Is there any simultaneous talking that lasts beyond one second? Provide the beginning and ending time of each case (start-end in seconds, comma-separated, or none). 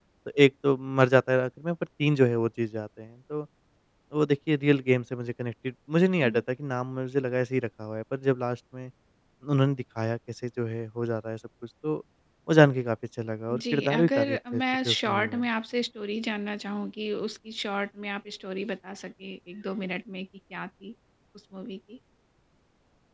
13.5-15.4